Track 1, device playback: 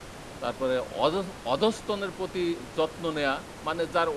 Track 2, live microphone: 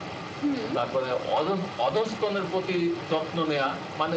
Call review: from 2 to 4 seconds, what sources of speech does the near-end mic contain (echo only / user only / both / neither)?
echo only